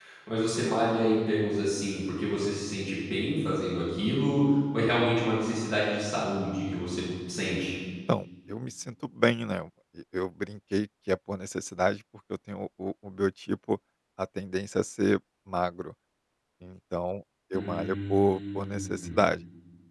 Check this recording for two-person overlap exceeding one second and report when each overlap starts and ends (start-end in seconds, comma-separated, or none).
17.5-19.2